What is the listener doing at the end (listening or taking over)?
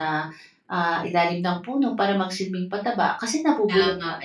taking over